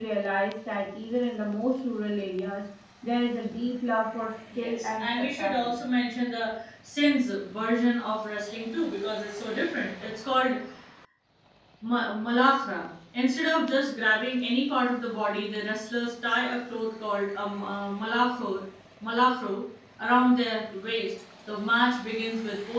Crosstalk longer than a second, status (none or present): present